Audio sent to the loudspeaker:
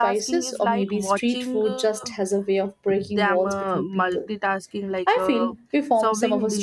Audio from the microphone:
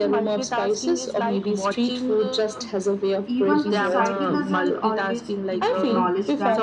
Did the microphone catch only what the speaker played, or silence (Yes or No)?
No